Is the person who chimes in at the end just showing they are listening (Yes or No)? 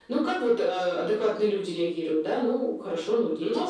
No